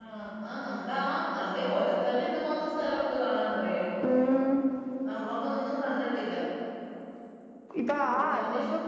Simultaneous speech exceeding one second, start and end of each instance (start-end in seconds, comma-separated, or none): none